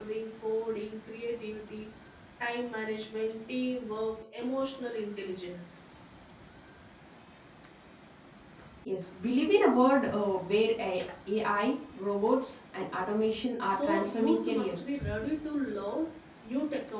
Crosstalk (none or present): present